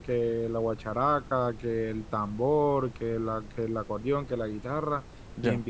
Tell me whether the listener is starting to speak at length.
No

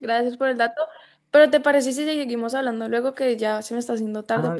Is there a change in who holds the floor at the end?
Yes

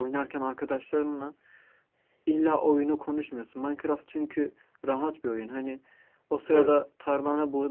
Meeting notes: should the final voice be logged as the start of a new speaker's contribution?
No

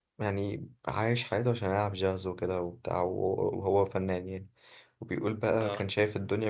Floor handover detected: No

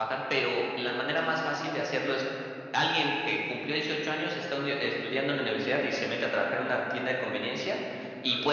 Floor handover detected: No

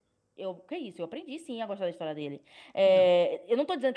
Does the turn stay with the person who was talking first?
Yes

